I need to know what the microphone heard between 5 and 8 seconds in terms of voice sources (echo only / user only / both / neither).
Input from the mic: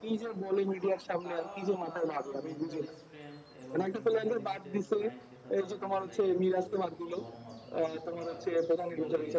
both